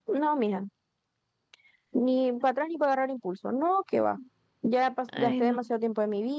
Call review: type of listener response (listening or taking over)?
listening